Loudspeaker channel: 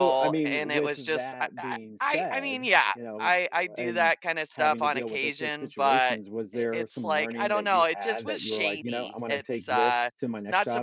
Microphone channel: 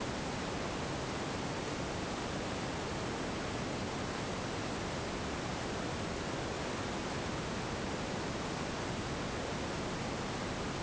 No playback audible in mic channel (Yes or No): Yes